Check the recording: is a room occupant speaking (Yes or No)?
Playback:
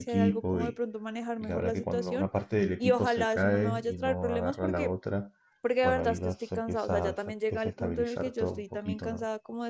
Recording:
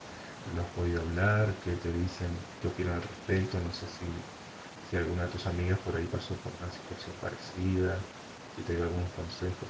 Yes